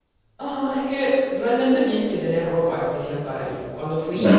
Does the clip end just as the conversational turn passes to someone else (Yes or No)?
No